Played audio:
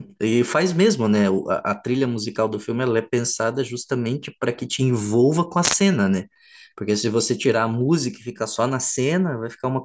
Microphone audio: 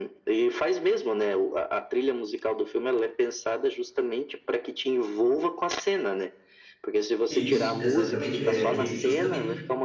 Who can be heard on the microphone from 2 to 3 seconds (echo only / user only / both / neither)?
echo only